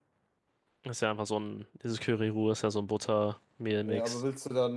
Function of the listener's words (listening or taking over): taking over